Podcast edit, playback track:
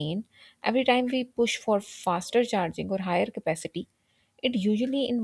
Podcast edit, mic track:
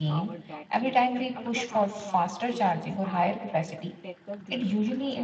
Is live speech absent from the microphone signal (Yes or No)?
No